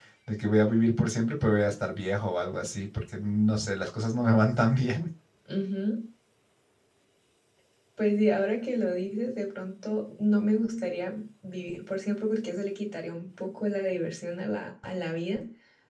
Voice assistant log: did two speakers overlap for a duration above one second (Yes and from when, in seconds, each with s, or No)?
No